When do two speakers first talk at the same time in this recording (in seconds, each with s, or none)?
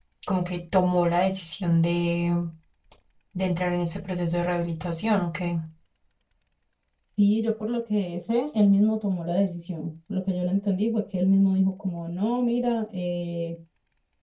none